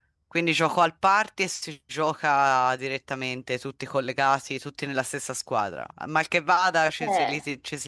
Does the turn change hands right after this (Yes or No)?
No